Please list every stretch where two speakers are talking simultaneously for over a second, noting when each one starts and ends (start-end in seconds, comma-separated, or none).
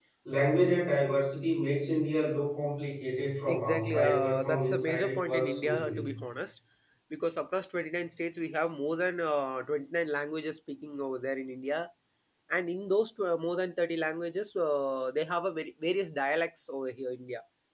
3.5-6.1